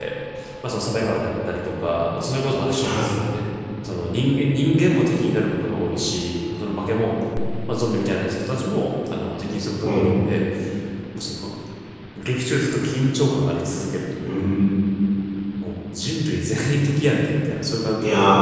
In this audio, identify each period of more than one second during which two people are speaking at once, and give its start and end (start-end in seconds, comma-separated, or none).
none